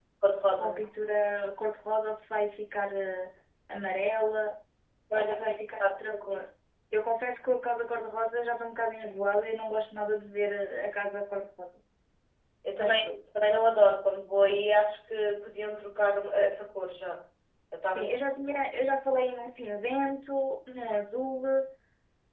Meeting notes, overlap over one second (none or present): present